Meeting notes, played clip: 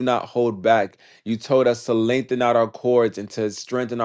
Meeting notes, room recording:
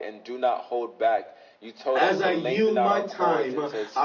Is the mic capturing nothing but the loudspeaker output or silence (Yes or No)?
No